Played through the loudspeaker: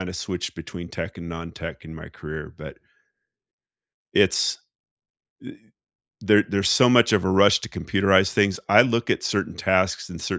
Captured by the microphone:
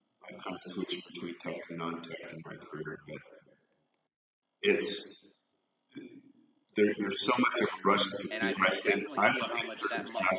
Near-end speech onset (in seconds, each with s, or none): 8.3 s